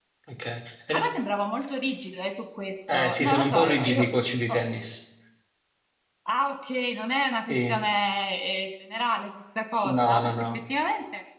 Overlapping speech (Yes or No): Yes